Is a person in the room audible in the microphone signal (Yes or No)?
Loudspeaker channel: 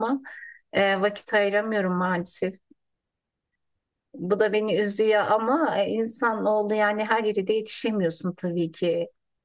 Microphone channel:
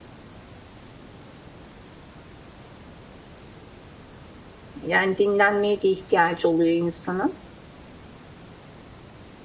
Yes